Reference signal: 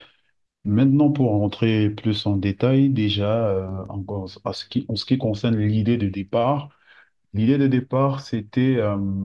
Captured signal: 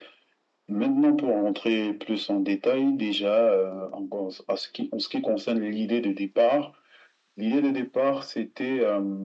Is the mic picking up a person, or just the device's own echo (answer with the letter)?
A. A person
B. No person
B